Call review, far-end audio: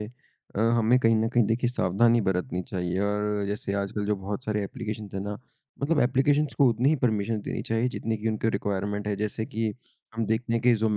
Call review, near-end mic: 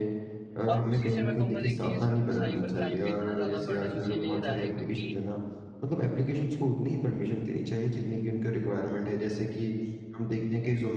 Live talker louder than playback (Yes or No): No